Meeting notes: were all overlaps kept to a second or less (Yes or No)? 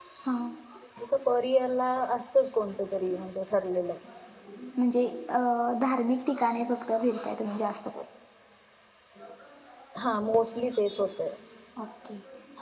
Yes